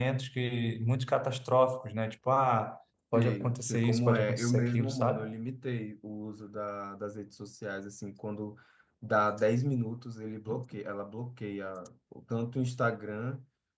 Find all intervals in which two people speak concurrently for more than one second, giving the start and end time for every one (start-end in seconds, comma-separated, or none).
3.1-5.2